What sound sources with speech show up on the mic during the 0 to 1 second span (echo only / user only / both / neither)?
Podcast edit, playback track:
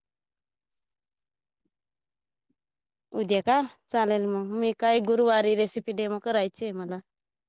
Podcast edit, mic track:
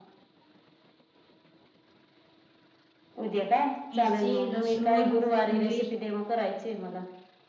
neither